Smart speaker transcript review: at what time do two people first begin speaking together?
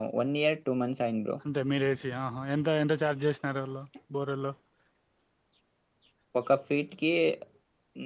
none

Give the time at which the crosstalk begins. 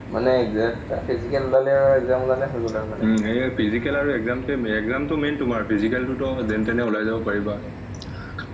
none

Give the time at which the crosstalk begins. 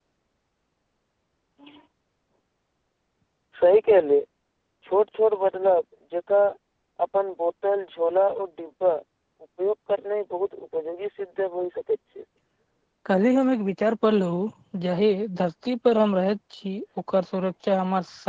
none

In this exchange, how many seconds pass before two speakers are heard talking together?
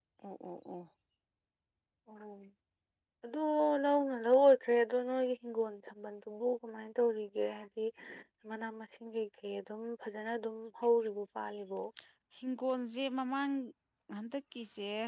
none

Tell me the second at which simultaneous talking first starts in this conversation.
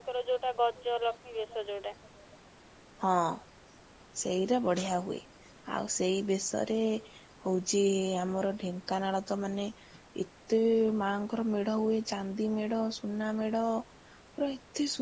none

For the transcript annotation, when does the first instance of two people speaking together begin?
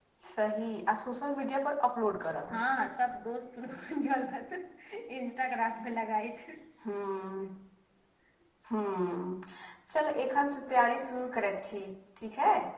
none

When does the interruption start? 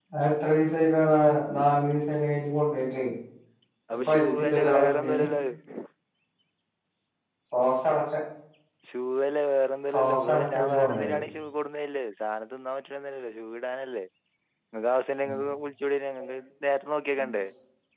4.0 s

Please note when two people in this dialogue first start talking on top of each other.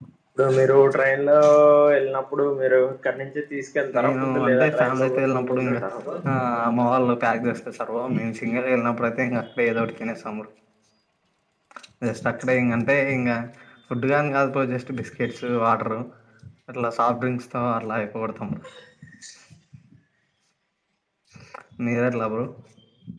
3.9 s

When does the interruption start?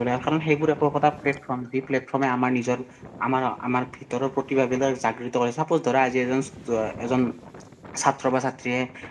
none

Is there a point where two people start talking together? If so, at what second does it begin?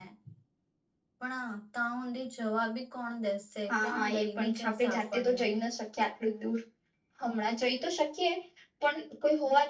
3.7 s

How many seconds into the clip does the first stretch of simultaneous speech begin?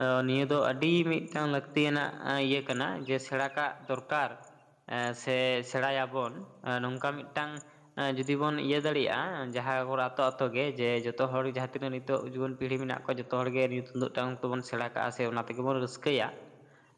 none

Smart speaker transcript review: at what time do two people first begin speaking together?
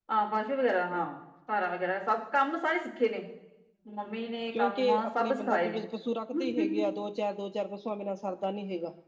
4.6 s

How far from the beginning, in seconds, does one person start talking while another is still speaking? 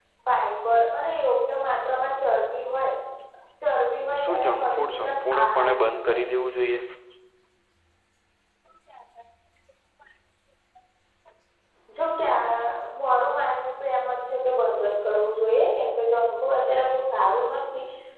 4.2 s

